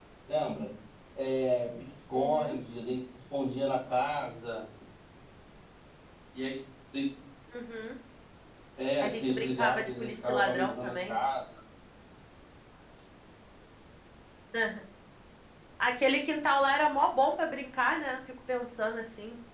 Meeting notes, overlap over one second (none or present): present